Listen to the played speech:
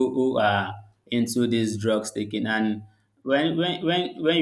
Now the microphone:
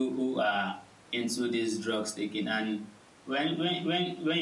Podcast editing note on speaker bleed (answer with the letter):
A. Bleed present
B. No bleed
A